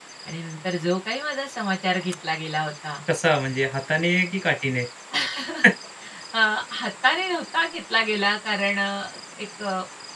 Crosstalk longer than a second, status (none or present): none